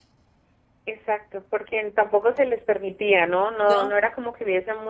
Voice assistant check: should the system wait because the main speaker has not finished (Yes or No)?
Yes